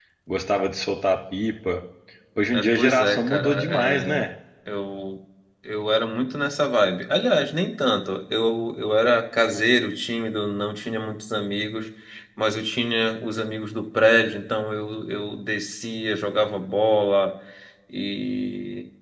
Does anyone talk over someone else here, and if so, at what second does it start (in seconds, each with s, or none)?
2.5 s